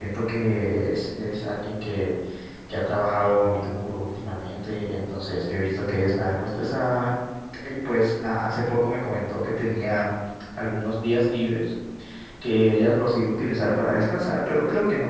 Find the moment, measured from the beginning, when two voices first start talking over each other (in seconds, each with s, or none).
none